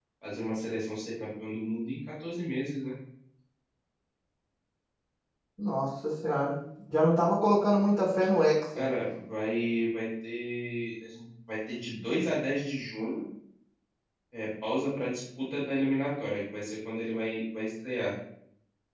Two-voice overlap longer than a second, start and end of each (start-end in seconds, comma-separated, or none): none